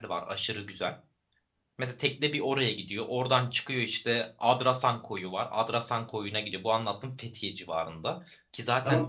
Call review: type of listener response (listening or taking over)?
taking over